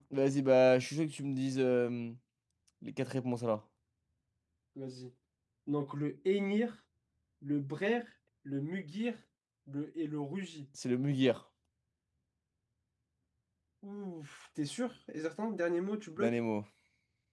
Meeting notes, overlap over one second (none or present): none